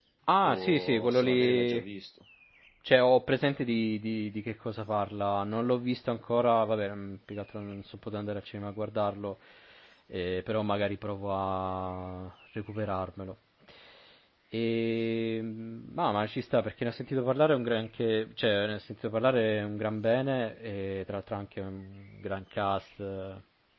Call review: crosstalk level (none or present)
present